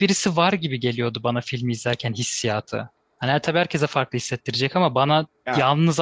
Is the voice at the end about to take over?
No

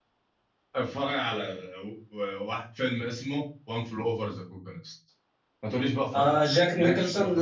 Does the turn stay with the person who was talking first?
No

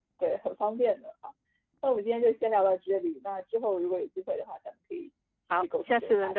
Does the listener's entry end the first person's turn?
Yes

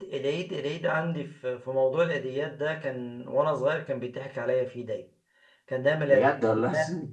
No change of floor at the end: Yes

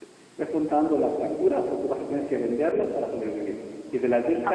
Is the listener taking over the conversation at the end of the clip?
No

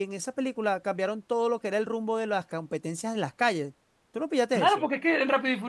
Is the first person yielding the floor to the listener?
Yes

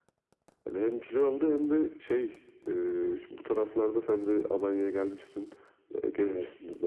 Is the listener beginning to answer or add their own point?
No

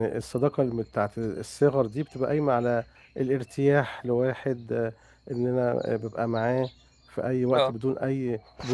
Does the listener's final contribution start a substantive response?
No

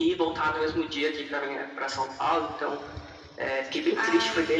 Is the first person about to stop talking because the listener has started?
No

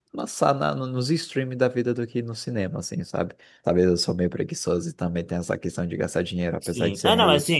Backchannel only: No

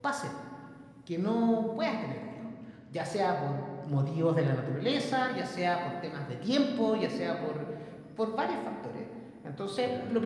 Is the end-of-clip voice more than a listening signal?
No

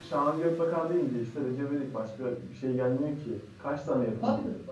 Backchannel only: Yes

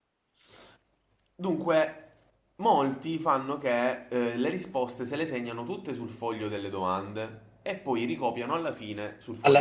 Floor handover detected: Yes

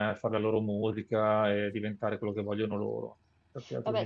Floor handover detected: Yes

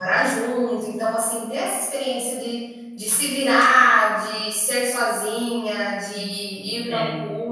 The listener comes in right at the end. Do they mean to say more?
No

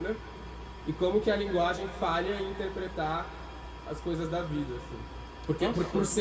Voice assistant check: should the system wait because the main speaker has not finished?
Yes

